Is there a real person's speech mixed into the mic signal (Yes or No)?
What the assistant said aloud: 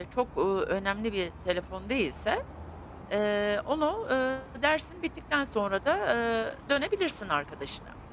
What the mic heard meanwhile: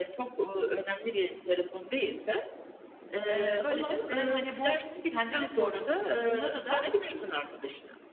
Yes